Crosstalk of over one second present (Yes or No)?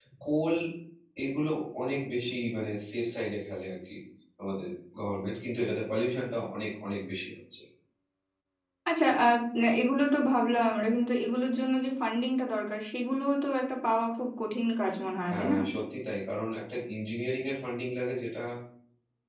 No